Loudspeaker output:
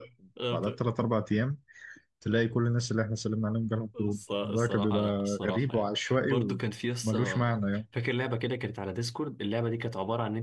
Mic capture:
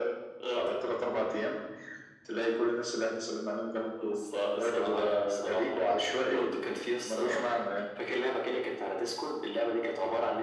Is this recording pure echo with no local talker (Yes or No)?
Yes